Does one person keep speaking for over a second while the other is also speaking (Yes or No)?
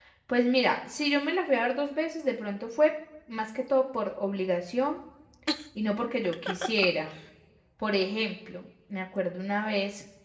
No